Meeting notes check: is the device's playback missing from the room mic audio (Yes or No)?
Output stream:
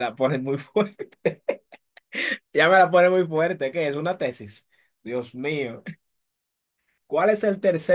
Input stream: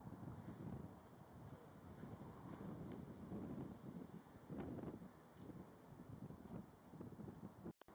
Yes